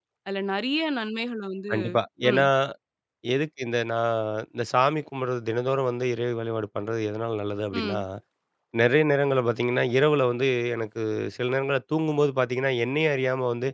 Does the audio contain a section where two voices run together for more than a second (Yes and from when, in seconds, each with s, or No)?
No